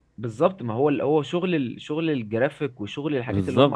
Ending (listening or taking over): listening